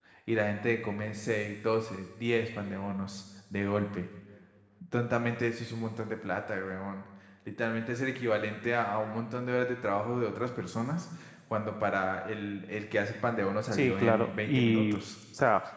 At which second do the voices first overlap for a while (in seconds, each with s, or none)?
13.7 s